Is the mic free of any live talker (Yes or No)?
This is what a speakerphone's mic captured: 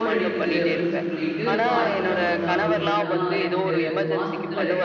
No